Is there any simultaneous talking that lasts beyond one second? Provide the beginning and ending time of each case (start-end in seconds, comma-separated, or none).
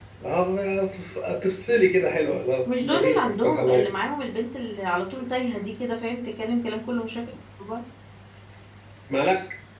2.7-3.9